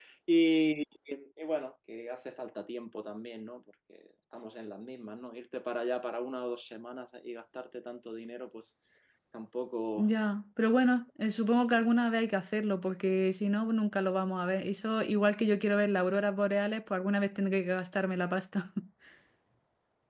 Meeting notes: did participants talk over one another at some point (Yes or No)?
No